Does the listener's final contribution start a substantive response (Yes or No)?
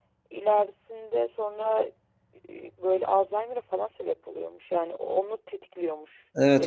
Yes